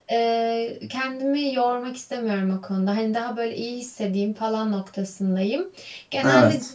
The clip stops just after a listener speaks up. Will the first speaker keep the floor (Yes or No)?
Yes